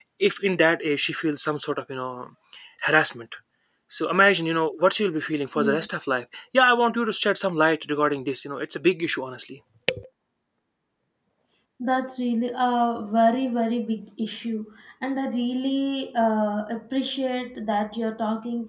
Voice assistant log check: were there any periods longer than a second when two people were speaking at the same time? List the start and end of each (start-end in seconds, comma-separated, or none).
none